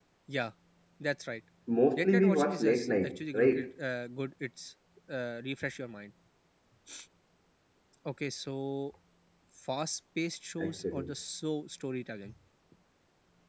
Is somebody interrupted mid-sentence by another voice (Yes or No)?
Yes